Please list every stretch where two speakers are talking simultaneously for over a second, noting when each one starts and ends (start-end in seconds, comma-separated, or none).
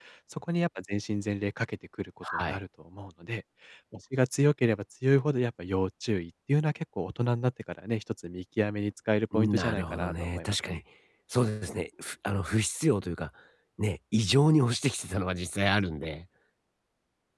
9.3-10.8